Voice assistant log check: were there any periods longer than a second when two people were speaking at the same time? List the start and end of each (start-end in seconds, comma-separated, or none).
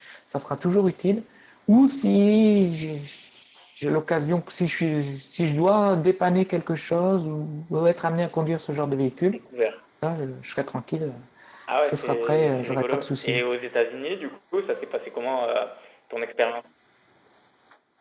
11.8-13.4